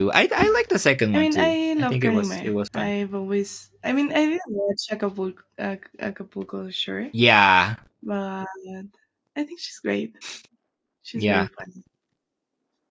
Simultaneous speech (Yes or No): Yes